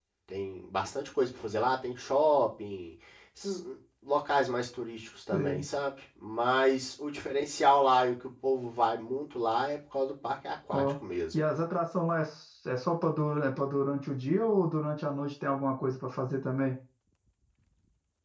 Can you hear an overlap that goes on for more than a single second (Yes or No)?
No